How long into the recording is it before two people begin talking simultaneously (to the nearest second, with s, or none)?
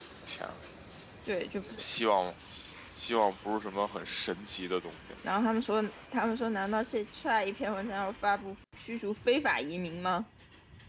none